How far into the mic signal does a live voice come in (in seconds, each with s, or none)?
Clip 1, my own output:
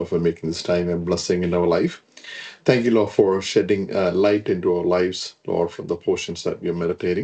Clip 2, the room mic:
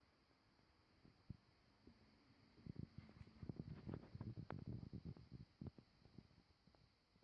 none